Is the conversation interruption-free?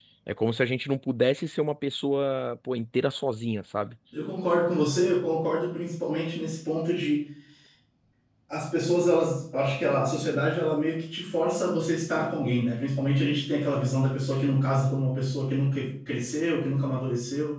Yes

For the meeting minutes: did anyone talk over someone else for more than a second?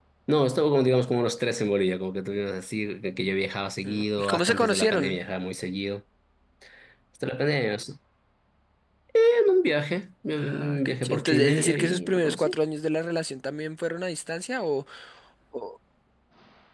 Yes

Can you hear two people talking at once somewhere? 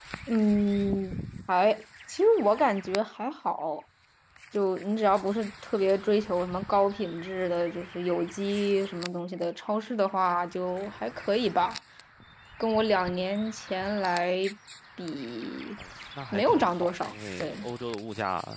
Yes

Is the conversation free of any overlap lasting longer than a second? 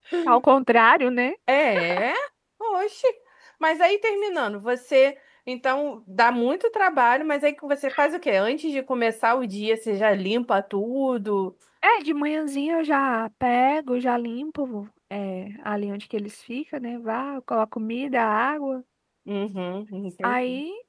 Yes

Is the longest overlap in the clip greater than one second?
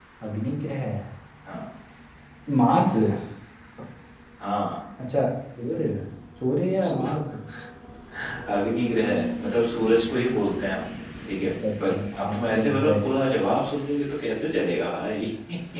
Yes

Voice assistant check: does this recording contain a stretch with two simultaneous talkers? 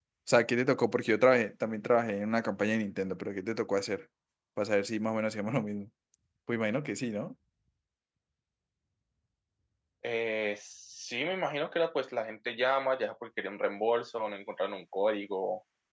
No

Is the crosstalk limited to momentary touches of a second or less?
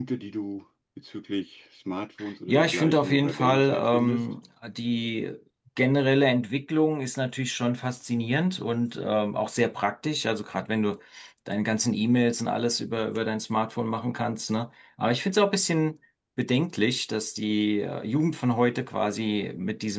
No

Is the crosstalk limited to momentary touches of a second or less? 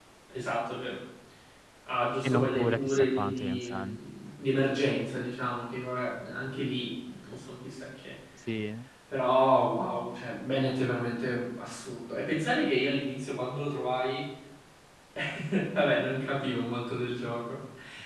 No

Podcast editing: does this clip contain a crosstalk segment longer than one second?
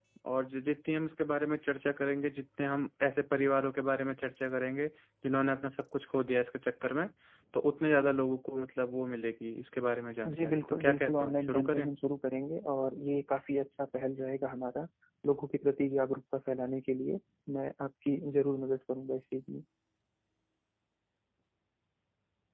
Yes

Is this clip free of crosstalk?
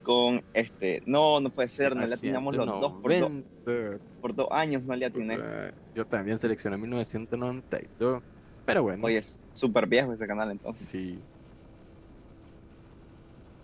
No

